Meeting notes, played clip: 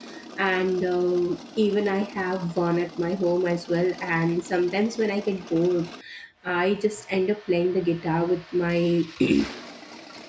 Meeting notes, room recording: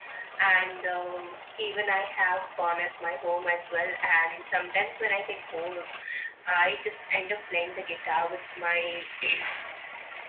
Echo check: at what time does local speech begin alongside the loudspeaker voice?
none

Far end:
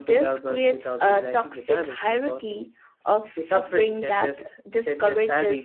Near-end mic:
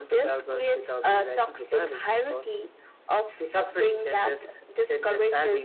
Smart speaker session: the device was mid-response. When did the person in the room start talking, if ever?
none

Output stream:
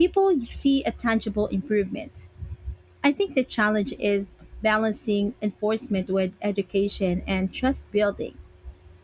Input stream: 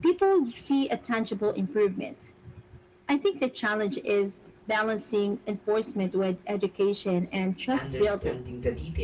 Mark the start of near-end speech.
8 s

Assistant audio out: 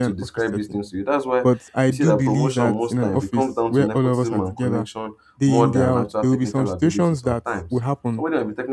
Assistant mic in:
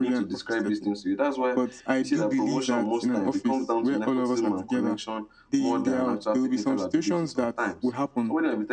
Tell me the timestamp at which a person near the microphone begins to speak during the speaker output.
none

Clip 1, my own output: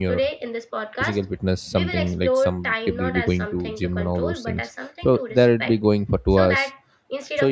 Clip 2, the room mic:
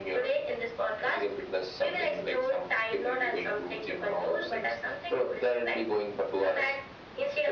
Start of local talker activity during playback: none

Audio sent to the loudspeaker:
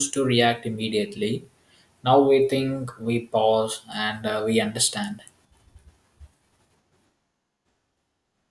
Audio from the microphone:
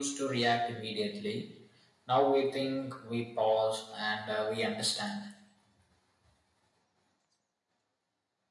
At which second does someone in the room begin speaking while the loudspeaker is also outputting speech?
none

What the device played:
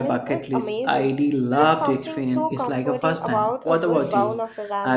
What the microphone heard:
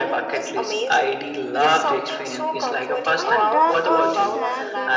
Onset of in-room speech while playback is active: 3 s

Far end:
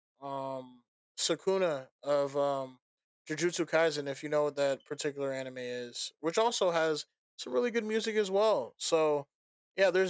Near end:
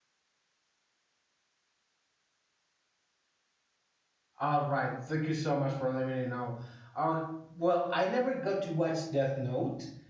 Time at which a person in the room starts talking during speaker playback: 4 s

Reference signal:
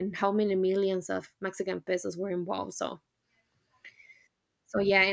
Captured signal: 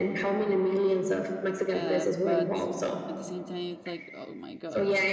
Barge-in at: 2 s

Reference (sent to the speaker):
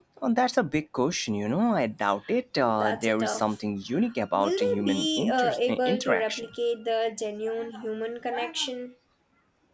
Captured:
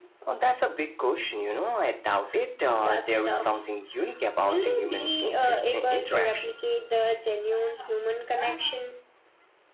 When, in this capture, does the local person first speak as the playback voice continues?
none

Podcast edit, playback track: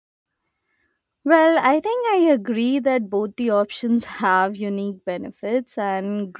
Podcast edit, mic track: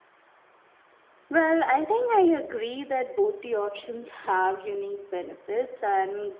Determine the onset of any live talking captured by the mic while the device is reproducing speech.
none

